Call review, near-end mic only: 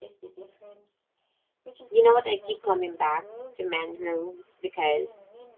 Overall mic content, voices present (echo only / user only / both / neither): both